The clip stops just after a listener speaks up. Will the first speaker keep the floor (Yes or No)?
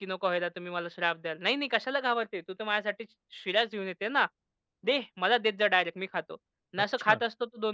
Yes